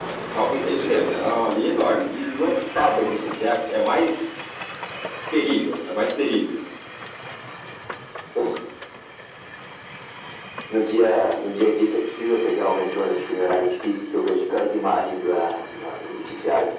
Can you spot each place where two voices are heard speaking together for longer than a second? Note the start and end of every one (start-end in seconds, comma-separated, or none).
none